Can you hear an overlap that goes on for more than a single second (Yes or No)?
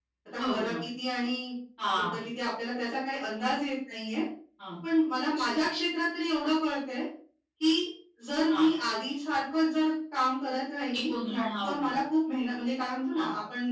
No